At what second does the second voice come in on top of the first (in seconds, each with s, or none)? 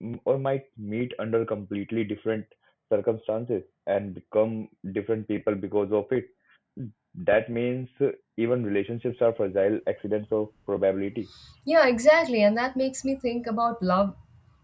none